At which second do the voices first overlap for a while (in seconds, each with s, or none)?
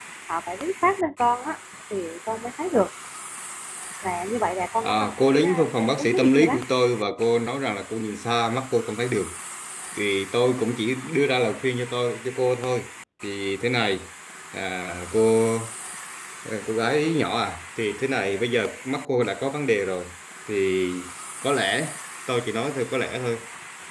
4.8 s